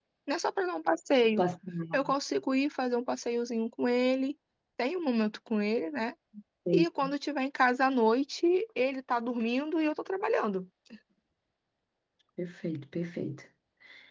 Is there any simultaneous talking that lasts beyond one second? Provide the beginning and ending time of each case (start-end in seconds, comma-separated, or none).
none